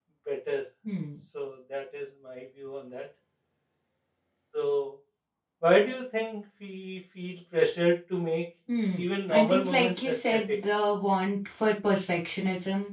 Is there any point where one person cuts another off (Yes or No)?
Yes